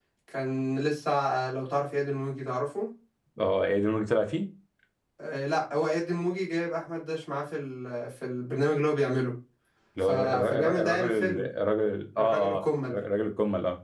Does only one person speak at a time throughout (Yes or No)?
No